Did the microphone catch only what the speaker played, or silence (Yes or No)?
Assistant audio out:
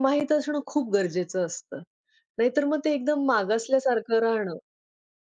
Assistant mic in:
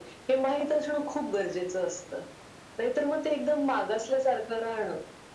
Yes